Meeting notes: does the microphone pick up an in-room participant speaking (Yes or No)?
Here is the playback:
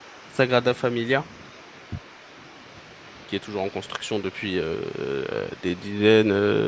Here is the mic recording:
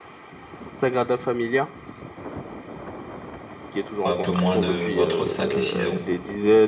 Yes